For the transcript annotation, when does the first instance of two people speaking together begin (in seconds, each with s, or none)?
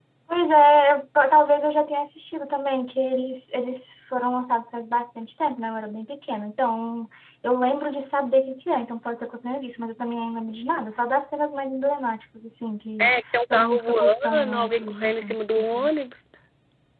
13.0 s